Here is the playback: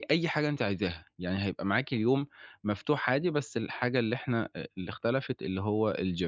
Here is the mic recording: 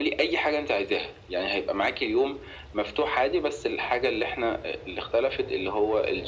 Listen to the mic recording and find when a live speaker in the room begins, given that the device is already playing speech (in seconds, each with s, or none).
none